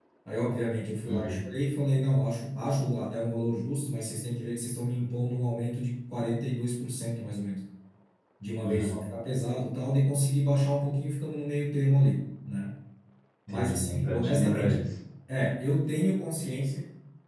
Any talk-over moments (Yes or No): Yes